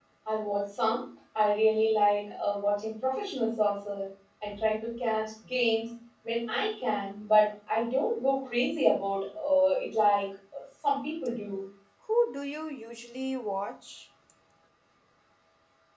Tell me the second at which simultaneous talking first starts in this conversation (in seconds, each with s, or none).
none